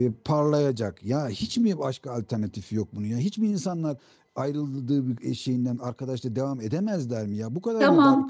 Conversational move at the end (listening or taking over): taking over